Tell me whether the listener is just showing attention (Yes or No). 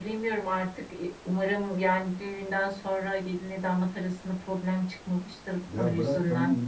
No